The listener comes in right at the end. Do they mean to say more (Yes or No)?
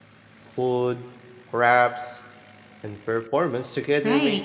Yes